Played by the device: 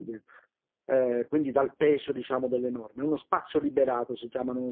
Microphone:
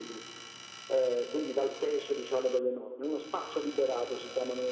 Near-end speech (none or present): none